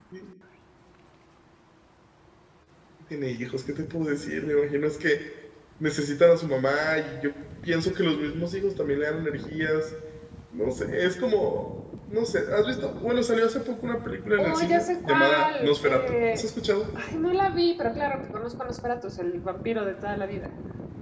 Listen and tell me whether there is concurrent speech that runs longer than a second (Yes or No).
Yes